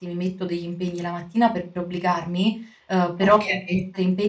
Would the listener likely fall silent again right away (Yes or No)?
Yes